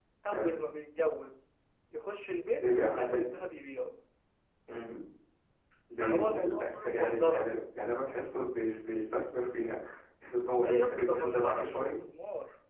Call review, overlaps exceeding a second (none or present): present